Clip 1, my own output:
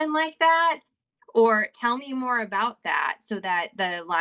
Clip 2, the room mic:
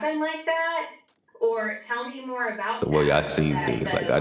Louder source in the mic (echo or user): user